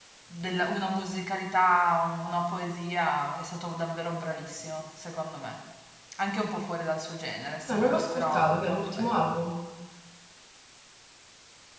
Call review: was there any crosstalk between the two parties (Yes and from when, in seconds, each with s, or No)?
Yes, from 7.7 s